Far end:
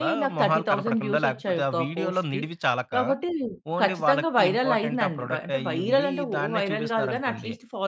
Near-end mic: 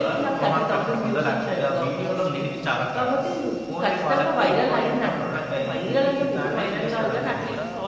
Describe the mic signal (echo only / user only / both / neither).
both